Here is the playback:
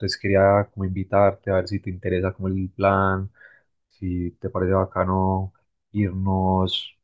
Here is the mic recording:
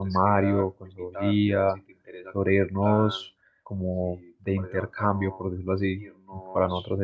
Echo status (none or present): present